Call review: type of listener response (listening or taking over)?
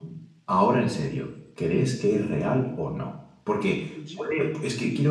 listening